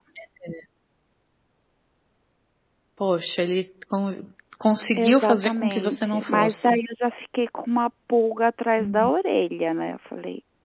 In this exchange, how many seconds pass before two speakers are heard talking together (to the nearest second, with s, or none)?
5 s